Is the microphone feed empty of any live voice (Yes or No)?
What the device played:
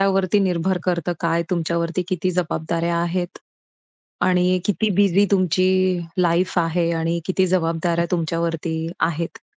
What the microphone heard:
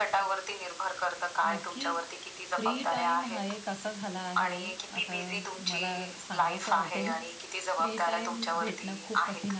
No